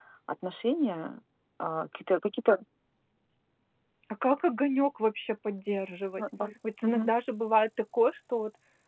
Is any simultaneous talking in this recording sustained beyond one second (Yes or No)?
No